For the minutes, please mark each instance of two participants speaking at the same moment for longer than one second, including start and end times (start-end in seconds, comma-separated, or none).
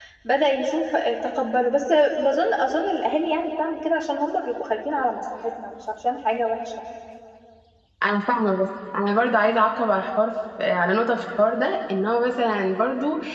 none